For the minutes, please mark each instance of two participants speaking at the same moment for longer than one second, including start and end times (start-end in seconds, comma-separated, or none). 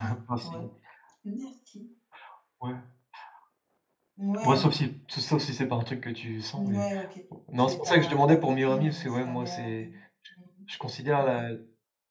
7.5-9.9